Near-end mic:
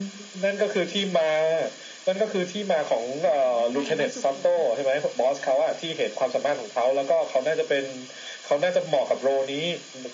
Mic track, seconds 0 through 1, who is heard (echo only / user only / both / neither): echo only